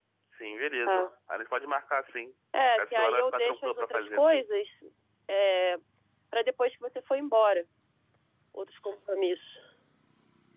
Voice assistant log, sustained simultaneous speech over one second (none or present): present